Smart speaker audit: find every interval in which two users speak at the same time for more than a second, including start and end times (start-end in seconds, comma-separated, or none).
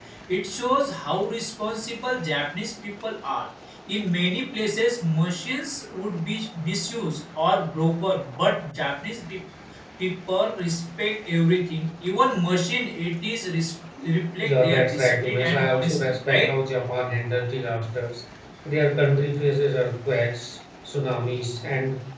14.4-16.5